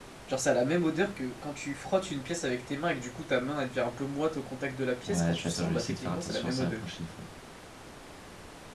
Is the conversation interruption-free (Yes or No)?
No